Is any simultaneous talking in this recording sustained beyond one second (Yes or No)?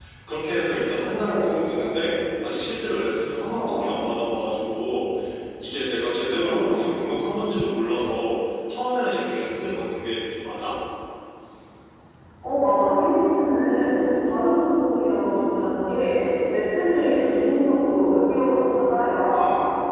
No